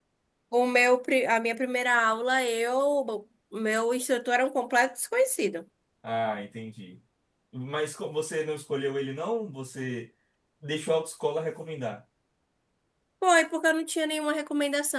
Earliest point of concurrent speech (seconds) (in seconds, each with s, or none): none